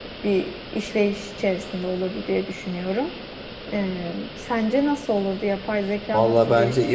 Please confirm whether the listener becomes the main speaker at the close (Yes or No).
Yes